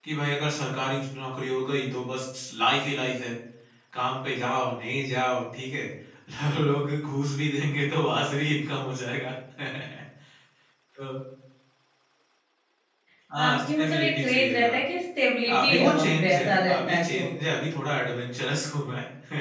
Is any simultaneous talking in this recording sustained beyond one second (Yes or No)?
Yes